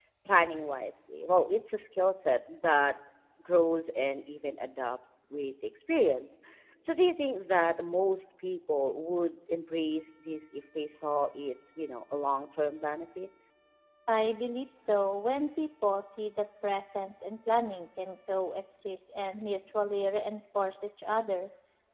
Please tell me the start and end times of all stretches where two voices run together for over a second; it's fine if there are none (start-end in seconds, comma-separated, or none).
none